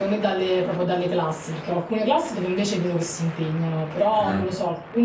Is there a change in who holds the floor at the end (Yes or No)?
No